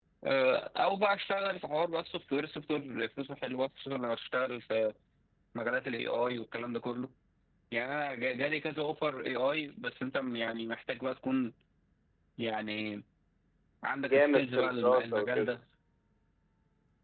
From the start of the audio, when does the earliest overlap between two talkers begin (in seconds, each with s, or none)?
14.0 s